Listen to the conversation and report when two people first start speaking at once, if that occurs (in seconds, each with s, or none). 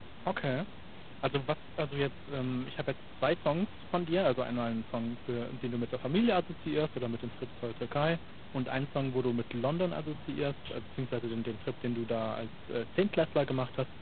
none